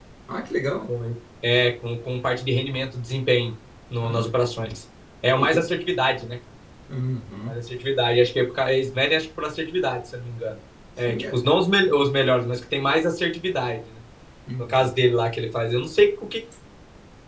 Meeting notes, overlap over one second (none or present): none